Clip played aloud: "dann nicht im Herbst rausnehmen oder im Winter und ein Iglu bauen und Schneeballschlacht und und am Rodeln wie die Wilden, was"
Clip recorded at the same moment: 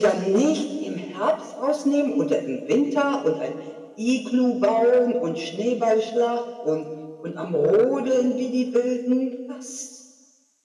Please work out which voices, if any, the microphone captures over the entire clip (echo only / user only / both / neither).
echo only